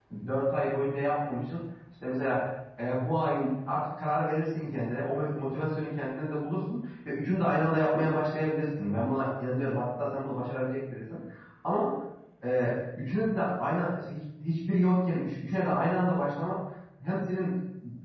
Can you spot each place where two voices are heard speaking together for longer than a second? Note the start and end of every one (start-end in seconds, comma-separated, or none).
none